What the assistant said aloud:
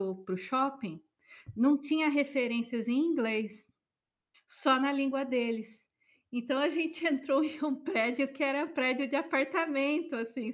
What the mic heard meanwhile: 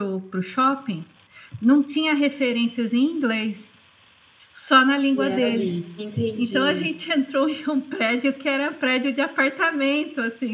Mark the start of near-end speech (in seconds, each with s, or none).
5.2 s